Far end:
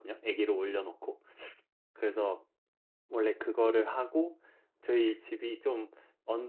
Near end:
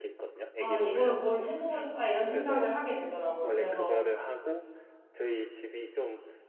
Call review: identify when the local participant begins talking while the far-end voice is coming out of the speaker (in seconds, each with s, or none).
0.5 s